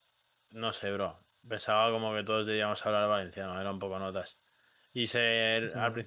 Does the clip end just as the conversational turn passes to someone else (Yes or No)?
No